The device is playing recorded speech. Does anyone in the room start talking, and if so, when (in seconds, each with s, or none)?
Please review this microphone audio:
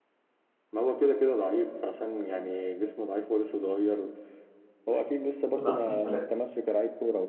5.6 s